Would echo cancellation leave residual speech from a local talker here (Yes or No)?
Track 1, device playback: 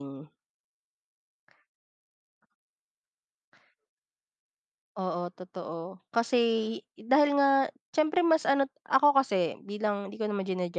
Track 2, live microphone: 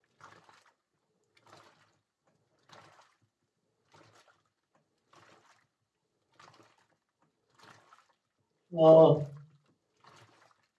Yes